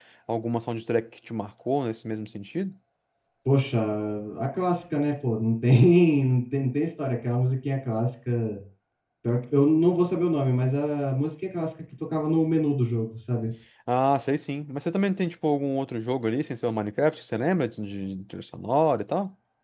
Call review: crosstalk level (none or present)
none